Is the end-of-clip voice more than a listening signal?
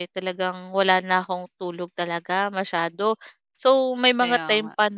No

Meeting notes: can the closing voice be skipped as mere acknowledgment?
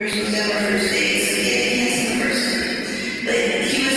Yes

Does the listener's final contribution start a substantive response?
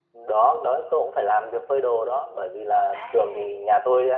No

